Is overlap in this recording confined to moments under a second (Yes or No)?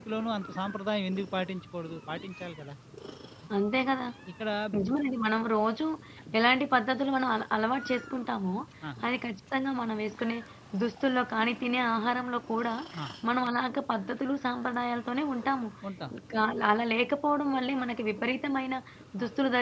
Yes